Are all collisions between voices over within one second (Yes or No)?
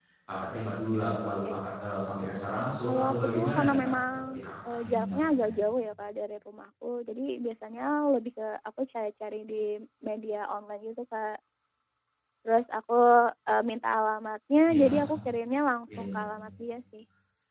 No